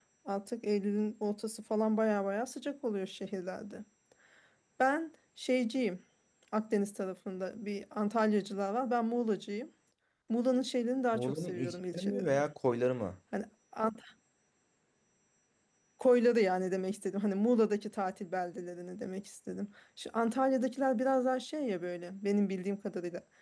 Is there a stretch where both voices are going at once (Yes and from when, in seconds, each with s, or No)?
Yes, from 11.1 s